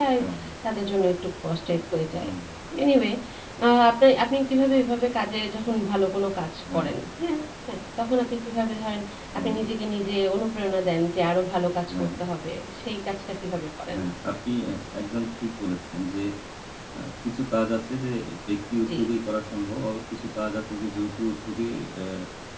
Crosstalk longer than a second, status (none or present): none